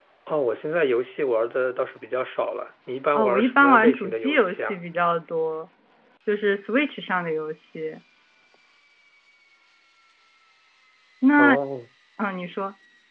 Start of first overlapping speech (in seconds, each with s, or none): 3.2 s